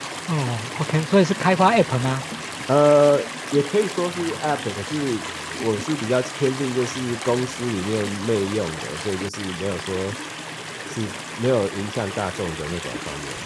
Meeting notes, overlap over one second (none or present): none